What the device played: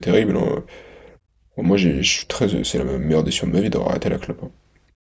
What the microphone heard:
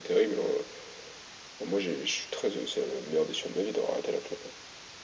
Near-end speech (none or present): none